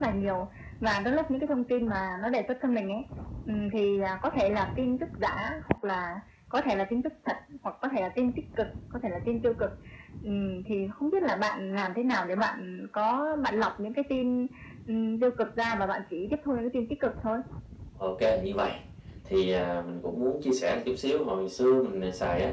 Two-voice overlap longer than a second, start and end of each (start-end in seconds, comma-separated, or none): none